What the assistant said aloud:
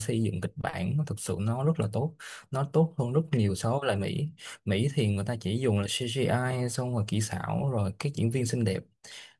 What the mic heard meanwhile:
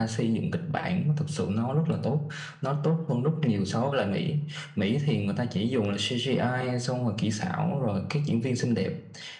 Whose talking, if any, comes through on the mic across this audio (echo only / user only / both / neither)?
echo only